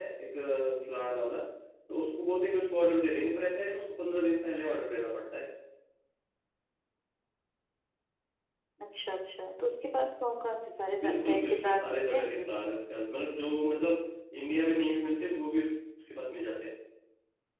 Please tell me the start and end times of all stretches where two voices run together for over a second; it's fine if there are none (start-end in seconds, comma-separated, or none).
11.0-12.4